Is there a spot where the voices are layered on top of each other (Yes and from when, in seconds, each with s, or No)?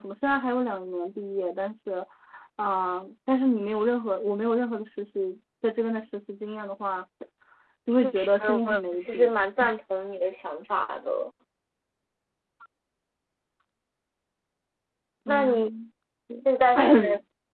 Yes, from 8.0 s